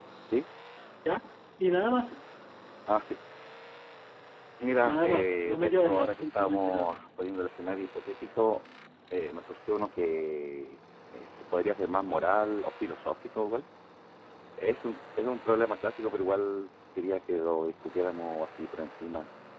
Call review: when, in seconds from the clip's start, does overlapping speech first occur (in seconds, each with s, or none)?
4.8 s